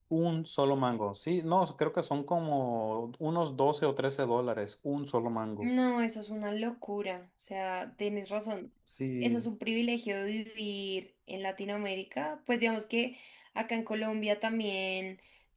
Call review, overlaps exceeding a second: none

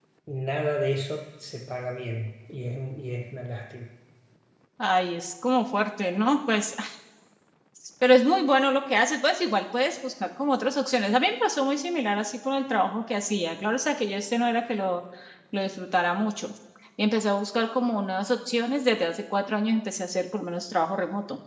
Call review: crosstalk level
none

